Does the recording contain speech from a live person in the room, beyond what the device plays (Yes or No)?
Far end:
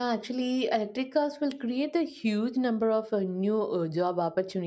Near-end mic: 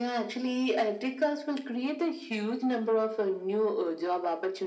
No